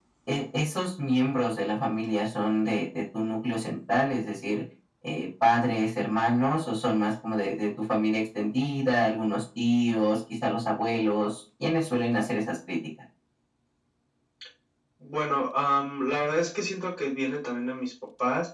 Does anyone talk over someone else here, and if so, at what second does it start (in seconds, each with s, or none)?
none